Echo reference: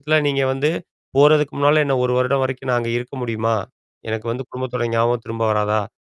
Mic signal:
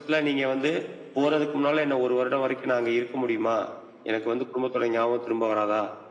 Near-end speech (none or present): none